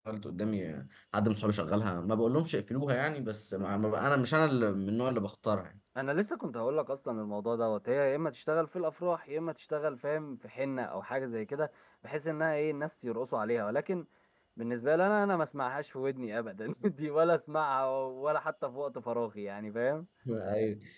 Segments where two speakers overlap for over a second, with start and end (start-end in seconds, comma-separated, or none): none